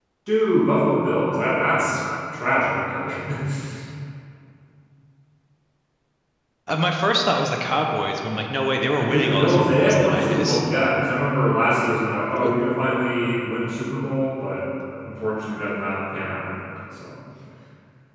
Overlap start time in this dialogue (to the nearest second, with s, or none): 9 s